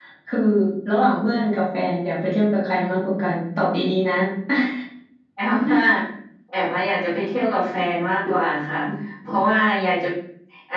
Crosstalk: none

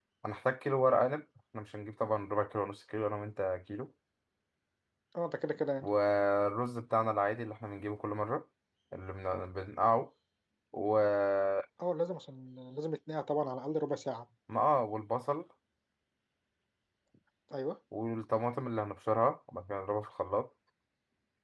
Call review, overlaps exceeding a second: none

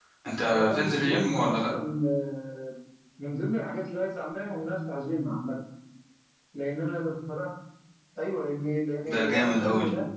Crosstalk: present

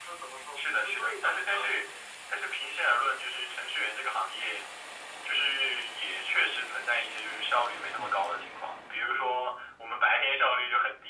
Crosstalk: present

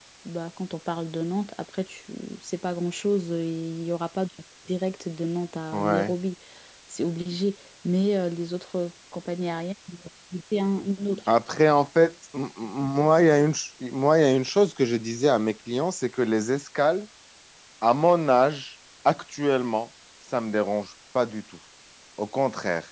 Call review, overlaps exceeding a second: none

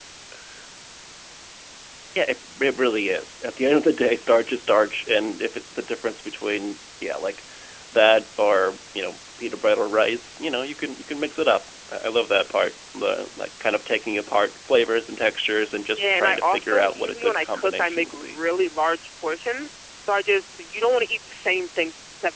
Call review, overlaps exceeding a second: present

